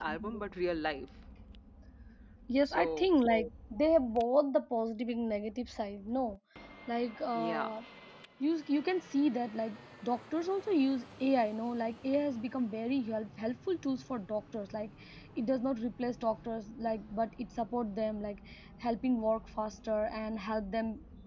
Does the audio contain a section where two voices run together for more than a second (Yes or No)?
No